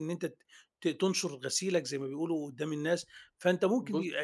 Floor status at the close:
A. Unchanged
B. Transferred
A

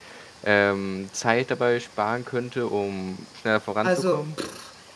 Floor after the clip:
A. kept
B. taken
B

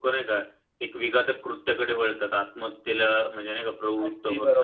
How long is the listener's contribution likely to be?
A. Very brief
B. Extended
B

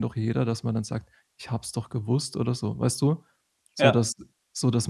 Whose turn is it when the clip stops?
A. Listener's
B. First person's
B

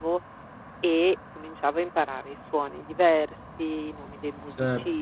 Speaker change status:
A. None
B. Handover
B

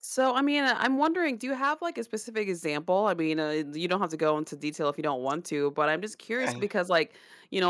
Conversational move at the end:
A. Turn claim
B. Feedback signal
B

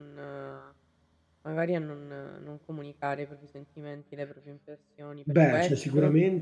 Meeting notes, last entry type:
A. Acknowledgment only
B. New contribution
B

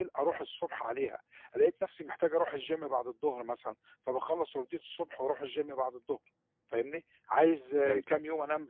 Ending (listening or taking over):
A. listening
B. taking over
A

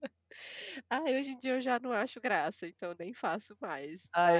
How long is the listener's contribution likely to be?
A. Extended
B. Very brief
A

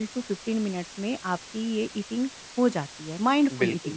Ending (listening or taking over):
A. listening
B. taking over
B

